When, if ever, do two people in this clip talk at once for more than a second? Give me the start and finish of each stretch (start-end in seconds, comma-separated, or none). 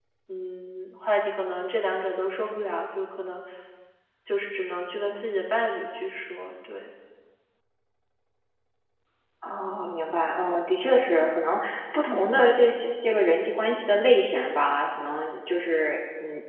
none